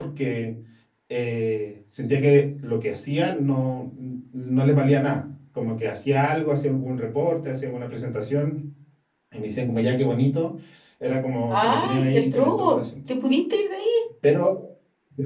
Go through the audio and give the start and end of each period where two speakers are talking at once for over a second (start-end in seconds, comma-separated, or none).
11.5-12.8